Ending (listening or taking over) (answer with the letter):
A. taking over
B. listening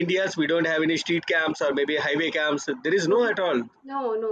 A